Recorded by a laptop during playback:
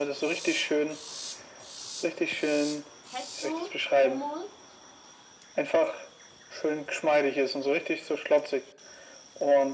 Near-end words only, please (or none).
Pesto, Hummus